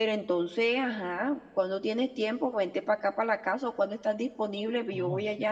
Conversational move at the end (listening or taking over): taking over